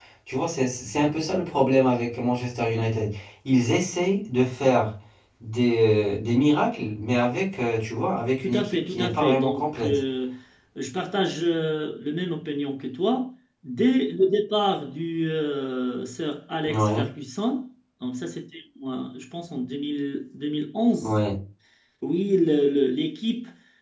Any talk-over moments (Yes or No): Yes